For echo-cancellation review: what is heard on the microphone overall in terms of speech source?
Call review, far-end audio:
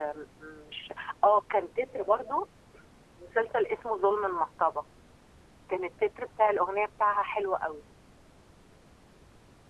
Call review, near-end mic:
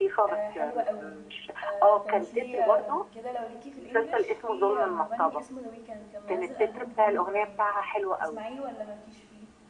both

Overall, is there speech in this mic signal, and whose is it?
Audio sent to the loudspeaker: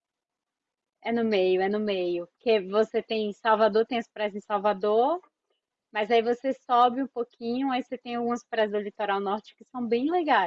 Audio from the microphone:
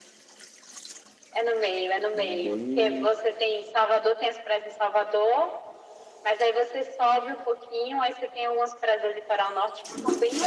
both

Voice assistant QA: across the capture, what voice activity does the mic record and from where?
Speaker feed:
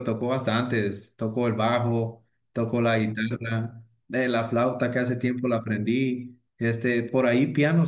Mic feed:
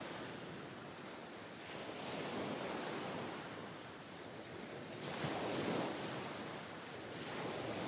neither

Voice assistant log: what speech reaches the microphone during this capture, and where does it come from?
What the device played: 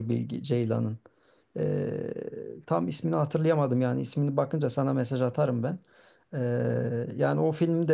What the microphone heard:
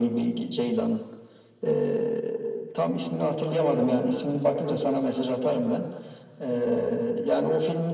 echo only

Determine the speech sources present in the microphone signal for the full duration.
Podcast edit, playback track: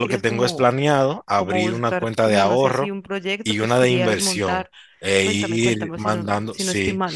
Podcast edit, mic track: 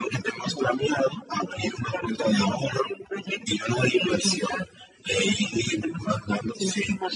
echo only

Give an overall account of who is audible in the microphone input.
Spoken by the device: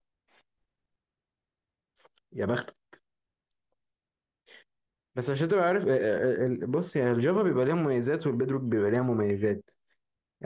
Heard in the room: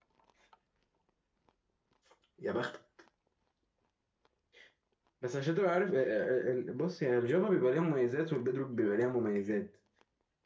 echo only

